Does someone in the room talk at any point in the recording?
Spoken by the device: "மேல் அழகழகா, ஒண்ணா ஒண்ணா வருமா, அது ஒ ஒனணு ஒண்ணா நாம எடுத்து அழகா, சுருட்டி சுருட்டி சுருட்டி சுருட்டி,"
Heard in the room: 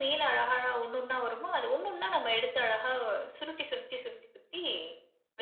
No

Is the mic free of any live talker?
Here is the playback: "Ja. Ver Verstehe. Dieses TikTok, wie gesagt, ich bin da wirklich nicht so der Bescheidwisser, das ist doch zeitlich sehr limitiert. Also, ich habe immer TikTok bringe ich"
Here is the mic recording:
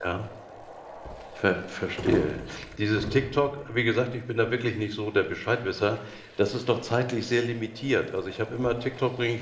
Yes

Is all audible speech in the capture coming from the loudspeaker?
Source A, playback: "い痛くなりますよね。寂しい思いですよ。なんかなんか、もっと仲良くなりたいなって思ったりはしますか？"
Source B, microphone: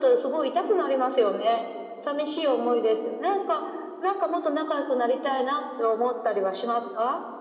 Yes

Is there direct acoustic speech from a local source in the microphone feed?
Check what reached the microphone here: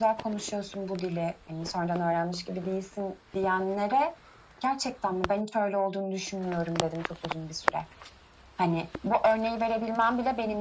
No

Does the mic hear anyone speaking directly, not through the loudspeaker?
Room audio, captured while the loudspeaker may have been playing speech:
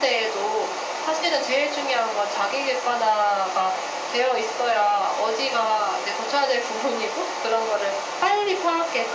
No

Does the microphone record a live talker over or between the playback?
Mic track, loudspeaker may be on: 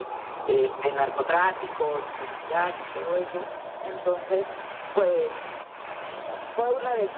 No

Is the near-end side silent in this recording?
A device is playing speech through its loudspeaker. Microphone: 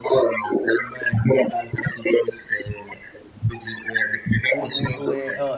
No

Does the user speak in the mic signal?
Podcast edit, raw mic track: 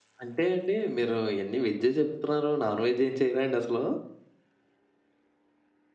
No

